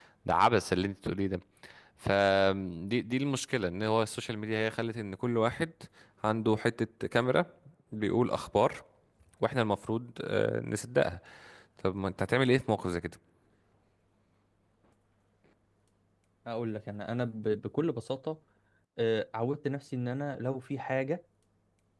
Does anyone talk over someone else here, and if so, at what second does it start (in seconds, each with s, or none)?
none